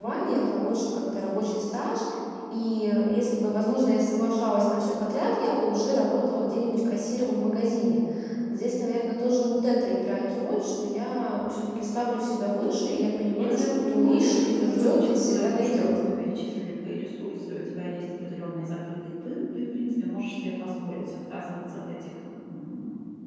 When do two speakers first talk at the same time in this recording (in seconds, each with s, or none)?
13.3 s